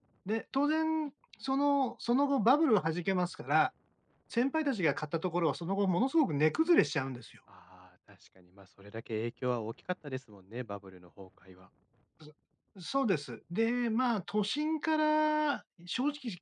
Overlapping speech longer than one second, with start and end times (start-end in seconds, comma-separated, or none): none